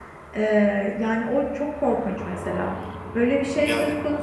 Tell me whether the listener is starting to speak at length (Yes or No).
No